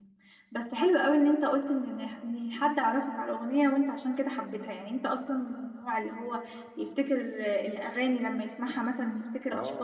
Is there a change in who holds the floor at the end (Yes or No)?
Yes